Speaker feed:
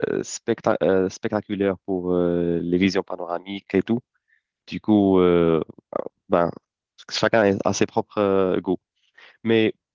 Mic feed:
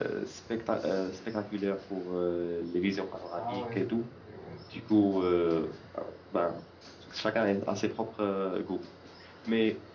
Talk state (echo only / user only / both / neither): both